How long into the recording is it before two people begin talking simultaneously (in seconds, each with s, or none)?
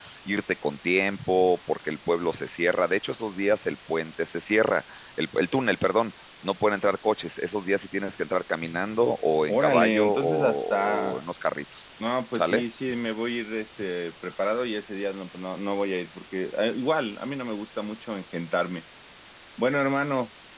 9.5 s